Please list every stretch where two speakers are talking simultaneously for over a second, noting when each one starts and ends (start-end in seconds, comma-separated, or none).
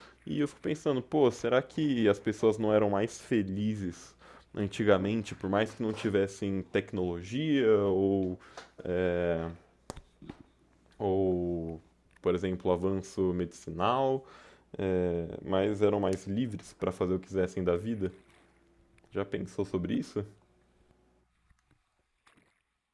none